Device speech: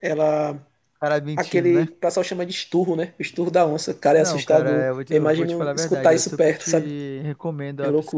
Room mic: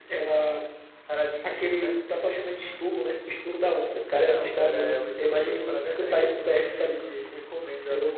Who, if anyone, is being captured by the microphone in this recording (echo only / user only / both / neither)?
echo only